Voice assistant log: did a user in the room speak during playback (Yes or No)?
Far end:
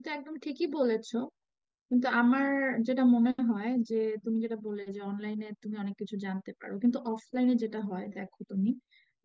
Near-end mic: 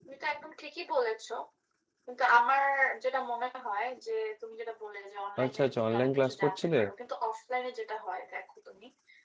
Yes